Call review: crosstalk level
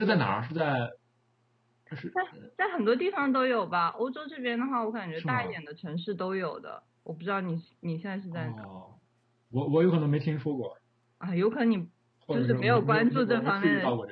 present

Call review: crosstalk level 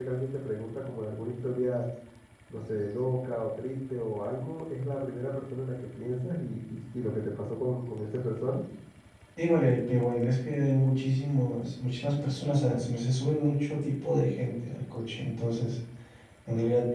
none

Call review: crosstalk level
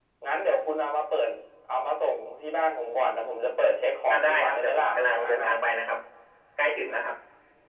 present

